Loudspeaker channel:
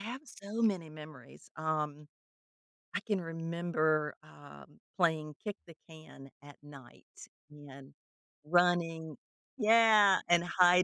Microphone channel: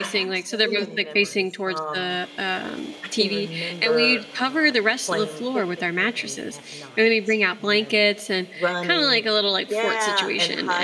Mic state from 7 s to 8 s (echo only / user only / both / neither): both